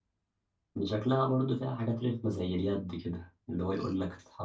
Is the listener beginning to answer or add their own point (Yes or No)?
No